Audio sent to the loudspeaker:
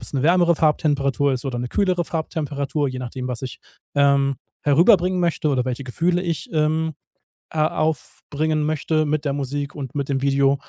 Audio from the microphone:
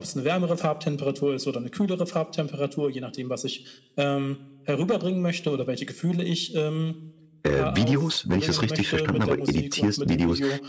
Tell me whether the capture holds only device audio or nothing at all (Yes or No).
No